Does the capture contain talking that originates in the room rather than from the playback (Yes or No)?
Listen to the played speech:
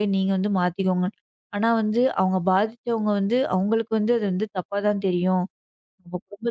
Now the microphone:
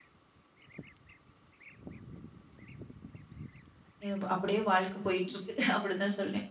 Yes